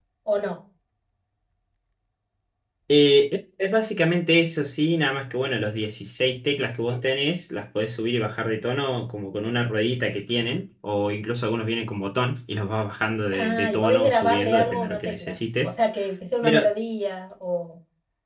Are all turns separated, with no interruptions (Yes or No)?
No